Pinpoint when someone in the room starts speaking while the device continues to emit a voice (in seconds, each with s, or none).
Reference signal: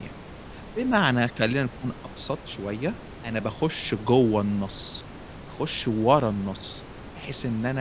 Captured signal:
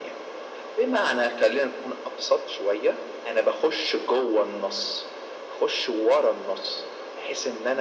none